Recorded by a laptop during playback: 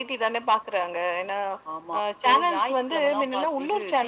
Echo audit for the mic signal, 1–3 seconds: echo only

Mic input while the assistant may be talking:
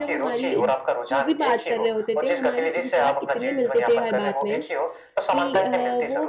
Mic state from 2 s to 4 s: both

